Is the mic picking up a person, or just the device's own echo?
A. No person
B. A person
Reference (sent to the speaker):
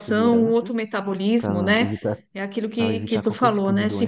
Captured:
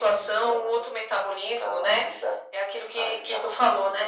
A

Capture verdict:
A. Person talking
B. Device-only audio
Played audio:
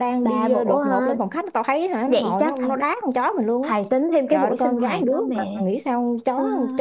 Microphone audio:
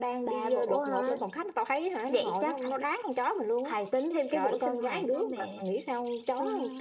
B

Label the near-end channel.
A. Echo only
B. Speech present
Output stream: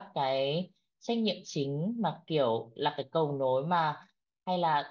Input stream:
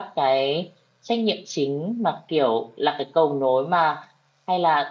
A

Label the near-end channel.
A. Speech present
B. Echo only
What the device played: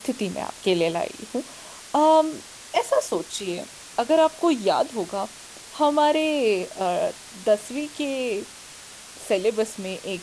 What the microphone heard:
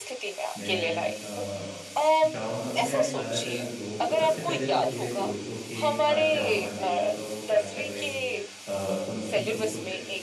A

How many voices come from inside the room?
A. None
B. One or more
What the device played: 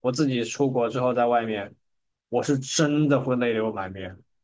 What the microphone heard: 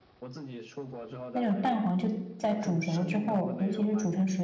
B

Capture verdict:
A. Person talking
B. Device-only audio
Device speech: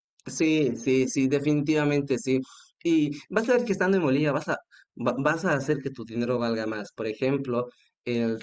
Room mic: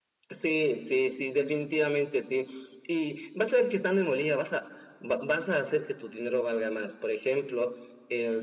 B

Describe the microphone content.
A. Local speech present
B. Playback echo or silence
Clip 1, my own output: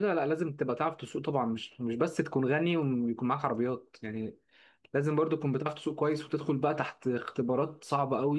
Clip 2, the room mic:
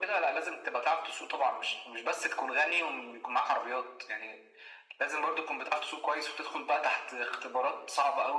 B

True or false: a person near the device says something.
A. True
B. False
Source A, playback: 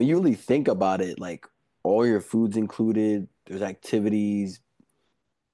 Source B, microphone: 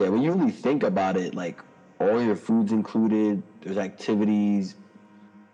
B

